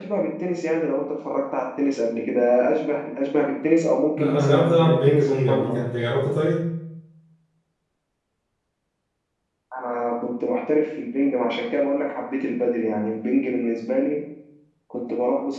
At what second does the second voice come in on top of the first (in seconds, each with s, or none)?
4.2 s